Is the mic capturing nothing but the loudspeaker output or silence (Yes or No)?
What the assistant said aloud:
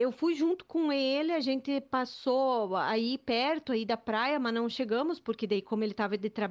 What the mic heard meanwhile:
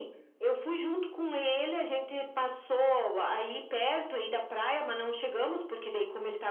Yes